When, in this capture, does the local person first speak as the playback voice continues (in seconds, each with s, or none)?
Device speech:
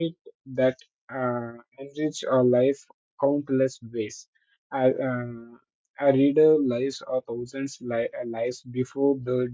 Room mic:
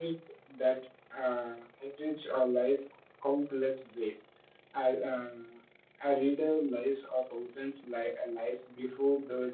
none